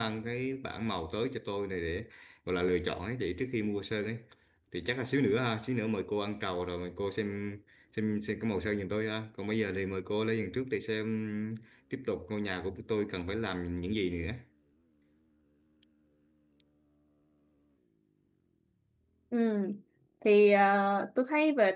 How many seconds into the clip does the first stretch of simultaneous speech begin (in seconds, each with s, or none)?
none